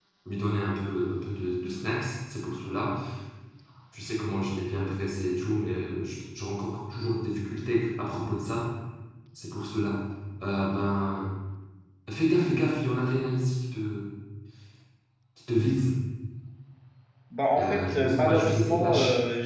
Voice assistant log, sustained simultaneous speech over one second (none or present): present